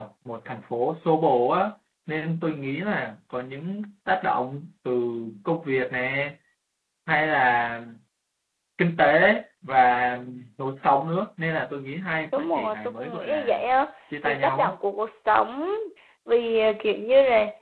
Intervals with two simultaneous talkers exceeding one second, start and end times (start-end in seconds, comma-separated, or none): 12.3-13.6